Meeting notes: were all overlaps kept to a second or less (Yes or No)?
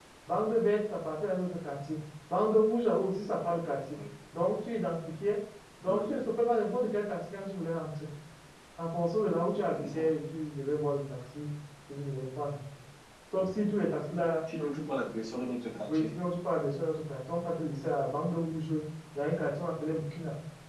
Yes